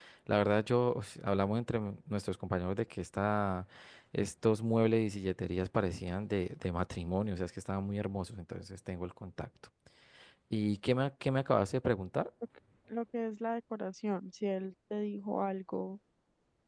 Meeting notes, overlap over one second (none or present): none